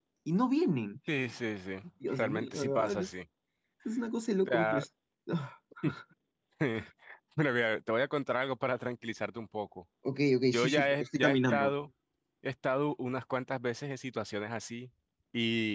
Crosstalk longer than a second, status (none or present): present